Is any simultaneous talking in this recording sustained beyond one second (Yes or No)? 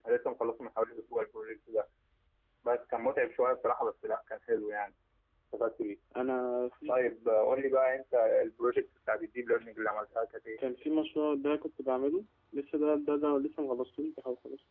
No